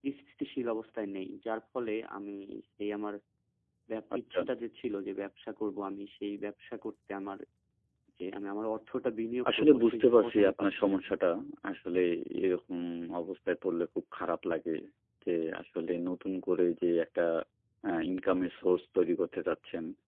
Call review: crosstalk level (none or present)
present